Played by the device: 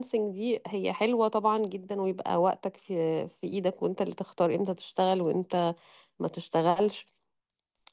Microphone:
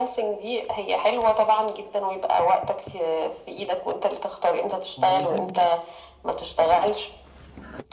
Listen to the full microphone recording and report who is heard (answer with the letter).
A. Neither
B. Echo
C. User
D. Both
D